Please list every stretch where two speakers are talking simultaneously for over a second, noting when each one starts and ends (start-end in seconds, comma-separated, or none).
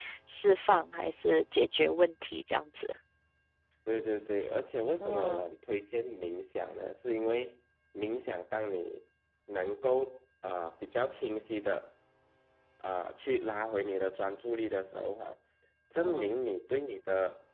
none